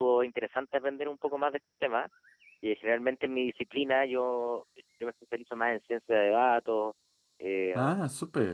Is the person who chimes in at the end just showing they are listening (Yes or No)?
Yes